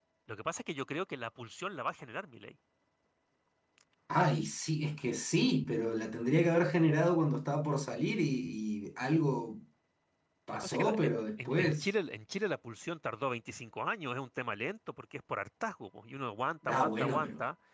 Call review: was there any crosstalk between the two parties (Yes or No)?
Yes